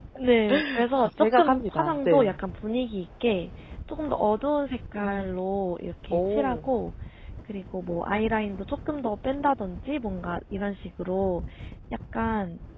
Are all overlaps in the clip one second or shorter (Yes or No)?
No